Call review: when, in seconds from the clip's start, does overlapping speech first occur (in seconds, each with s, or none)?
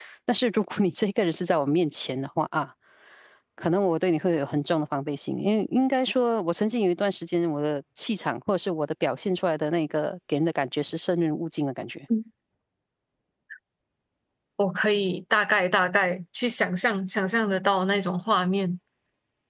none